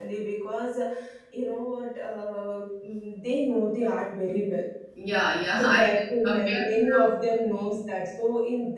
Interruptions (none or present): present